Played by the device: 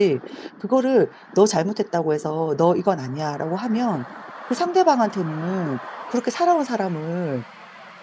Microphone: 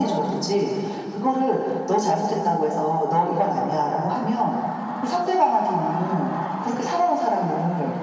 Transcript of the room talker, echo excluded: none

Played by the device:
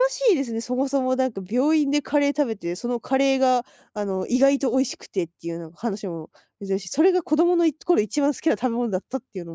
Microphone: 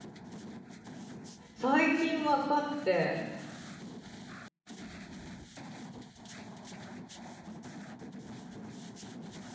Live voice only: 最近分かって、

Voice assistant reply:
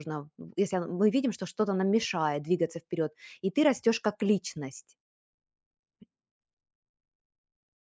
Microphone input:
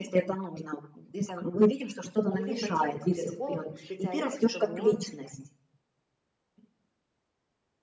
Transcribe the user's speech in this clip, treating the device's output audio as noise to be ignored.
или пойти к психологу, к специалисту, чтобы он,

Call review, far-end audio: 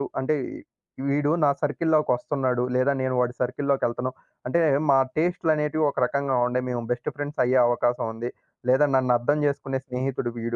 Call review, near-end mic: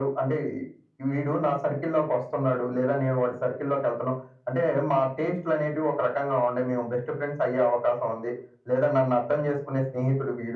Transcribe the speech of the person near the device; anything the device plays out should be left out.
none

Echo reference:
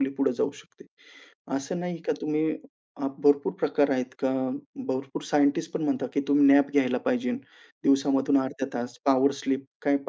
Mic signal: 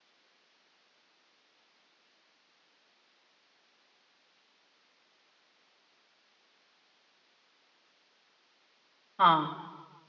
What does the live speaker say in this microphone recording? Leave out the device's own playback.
हां,

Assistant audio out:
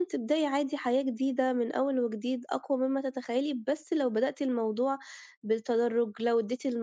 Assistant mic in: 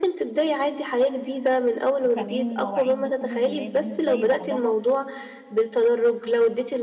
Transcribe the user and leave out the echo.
وكمان مواعيد دخول الولاد مش زي بعضها،

